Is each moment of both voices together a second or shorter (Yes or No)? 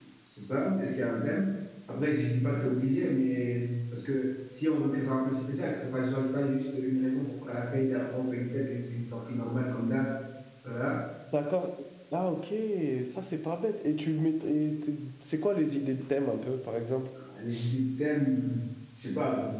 Yes